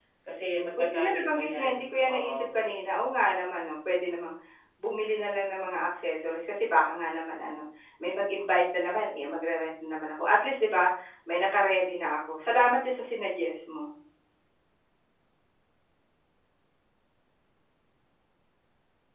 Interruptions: present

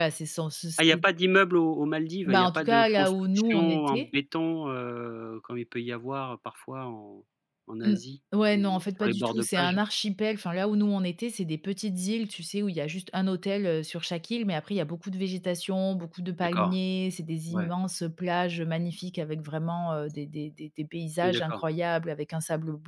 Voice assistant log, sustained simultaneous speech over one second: present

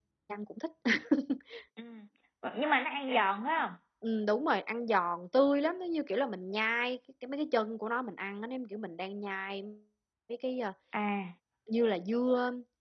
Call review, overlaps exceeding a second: none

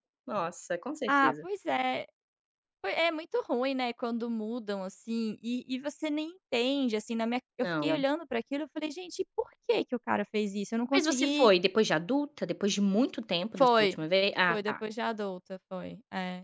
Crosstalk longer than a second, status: none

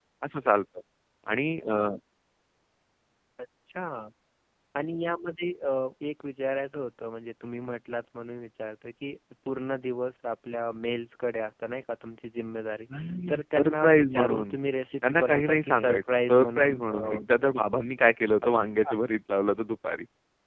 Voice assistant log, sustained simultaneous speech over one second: present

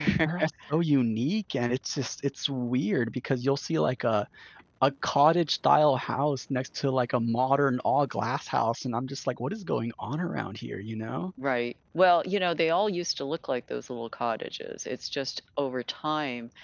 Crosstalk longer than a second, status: none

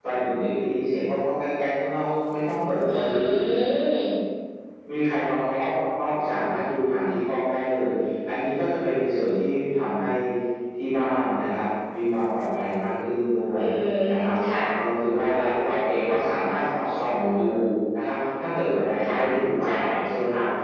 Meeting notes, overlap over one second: none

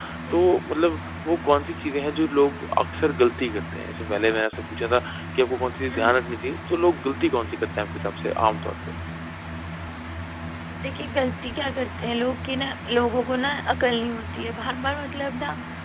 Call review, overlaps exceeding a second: none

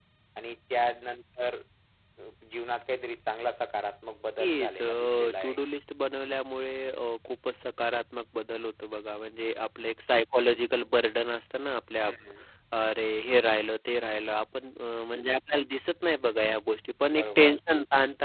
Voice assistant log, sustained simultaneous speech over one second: present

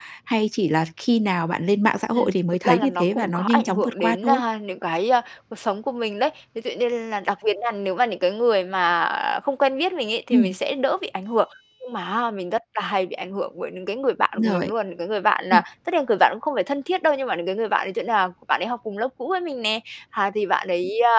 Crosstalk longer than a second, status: present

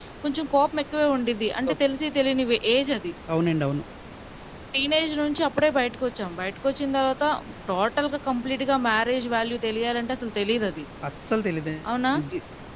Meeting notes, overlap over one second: none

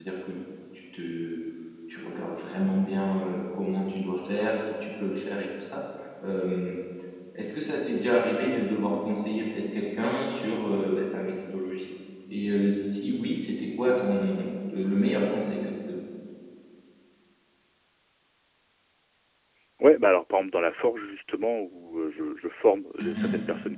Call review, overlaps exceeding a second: none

